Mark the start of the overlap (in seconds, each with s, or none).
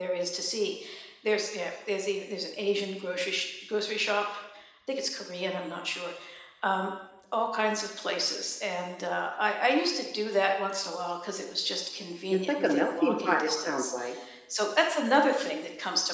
12.3 s